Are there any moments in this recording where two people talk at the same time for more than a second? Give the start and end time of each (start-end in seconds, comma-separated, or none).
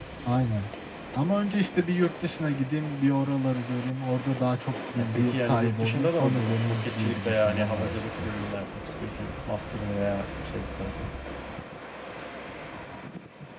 5.0-8.3